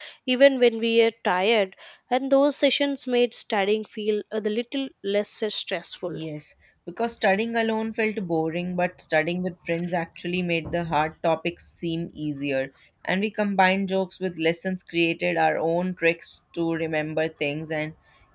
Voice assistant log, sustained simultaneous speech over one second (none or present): none